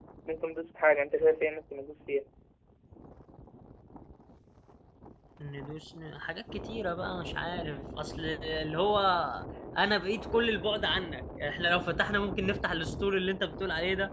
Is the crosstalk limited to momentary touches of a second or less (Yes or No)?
Yes